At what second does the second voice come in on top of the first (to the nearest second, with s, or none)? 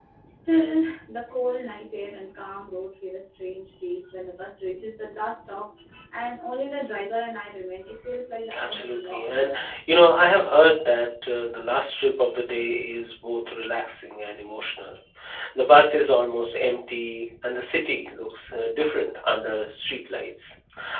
9 s